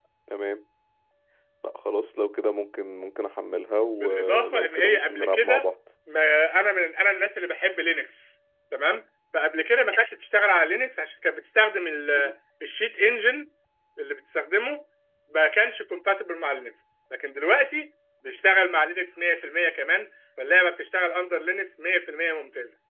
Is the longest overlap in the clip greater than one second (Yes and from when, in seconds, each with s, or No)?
Yes, from 3.9 s